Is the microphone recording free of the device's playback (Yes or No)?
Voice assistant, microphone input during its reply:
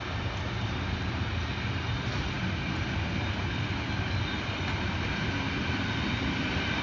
Yes